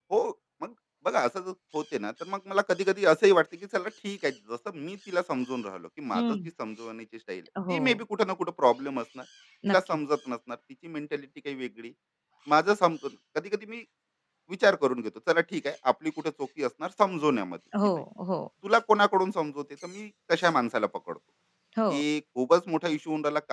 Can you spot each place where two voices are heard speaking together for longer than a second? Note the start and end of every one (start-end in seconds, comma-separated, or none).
none